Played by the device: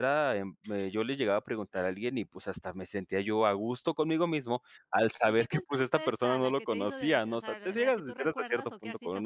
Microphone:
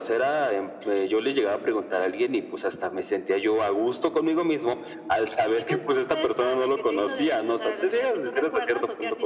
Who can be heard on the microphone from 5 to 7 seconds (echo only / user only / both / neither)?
echo only